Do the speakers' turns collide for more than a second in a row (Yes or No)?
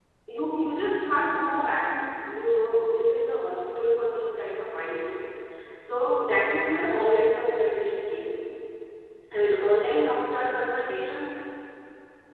No